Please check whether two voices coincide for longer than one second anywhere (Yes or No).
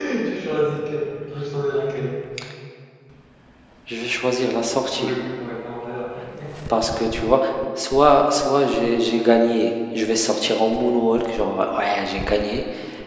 No